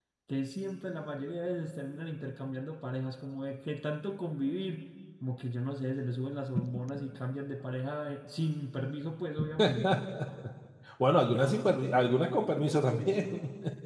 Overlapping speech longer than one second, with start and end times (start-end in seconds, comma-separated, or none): none